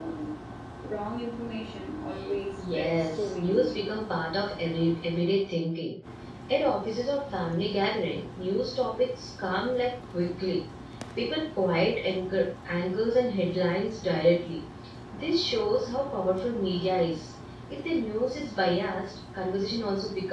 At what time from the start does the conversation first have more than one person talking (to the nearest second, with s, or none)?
3 s